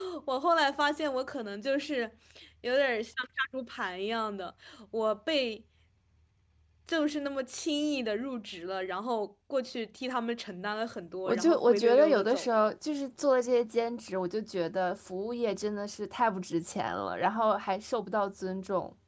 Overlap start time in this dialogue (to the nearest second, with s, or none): 11 s